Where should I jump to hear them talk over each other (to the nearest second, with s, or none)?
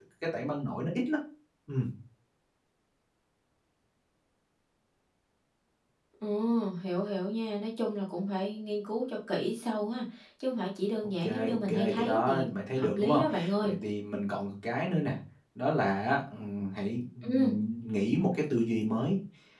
11 s